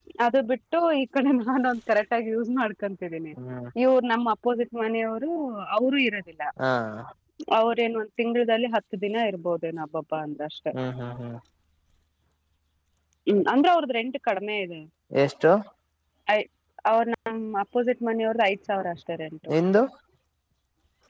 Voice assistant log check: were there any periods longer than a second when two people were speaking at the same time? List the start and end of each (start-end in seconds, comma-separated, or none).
none